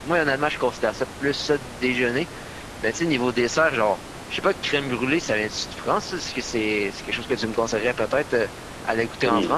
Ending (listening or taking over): taking over